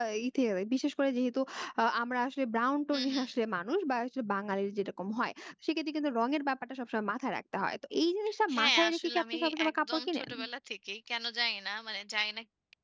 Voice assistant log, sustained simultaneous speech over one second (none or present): present